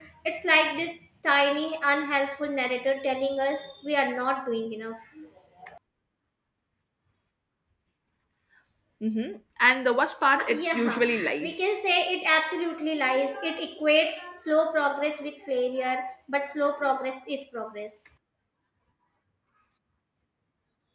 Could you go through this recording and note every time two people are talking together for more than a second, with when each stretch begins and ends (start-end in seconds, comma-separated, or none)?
10.4-11.7